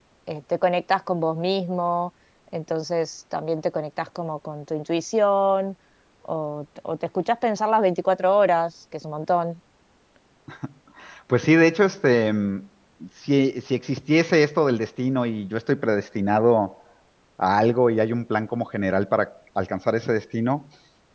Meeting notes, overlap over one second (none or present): none